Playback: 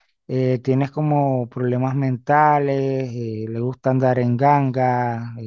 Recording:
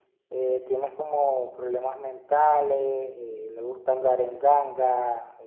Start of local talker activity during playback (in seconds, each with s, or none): none